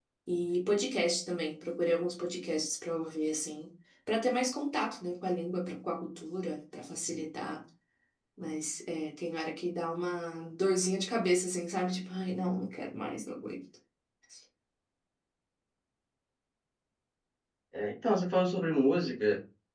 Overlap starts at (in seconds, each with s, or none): none